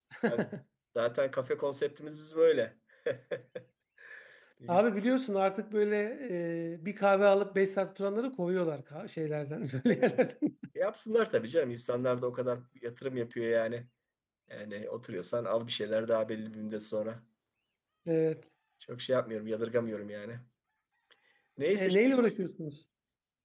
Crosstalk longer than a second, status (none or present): none